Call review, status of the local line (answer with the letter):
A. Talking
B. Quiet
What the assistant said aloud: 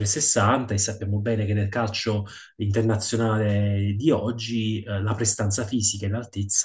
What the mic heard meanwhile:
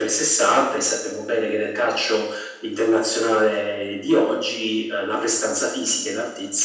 B